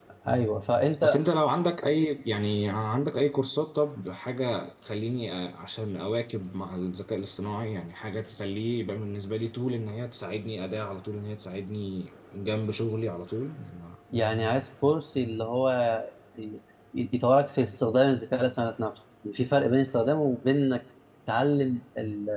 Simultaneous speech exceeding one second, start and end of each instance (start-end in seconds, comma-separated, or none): none